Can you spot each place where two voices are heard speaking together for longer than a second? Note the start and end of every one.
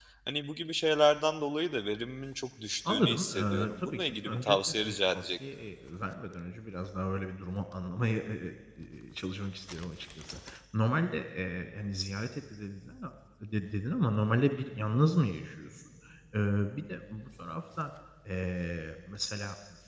2.9-5.4

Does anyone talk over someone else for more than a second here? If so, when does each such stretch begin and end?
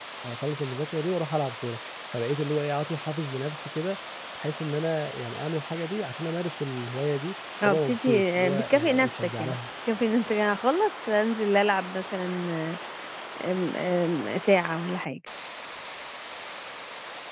7.6-9.6

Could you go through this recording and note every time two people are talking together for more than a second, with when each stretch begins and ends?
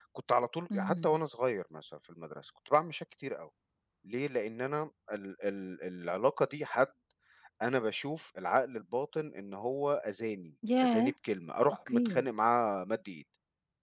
none

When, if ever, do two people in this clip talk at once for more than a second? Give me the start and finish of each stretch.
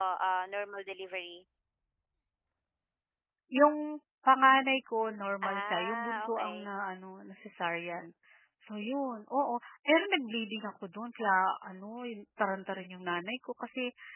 5.4-6.7

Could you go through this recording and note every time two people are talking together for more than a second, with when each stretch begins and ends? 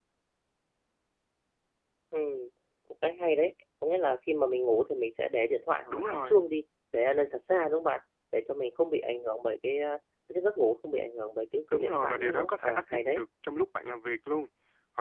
11.7-13.2

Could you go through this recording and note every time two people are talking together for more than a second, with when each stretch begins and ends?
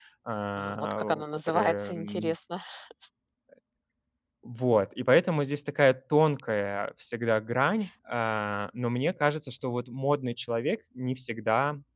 0.6-2.3

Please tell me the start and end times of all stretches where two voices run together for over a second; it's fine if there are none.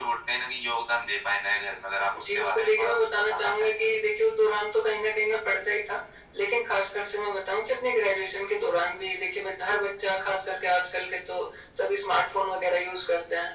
2.1-3.7

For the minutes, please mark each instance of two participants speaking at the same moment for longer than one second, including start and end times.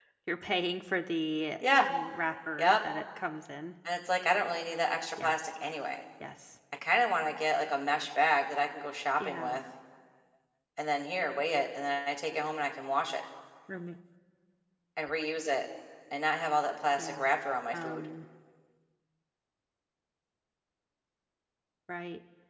none

